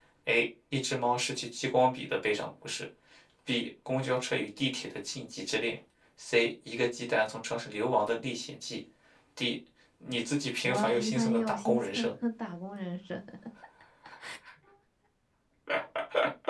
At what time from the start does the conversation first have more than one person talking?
10.7 s

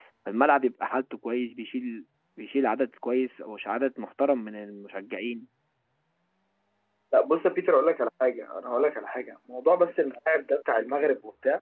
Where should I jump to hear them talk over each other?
none

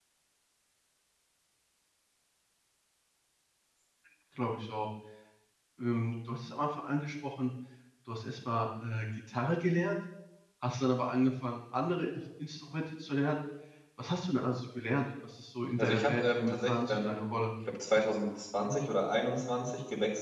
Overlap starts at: 15.8 s

